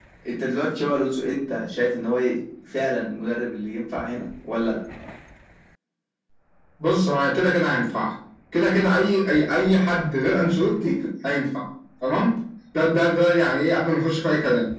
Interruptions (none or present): none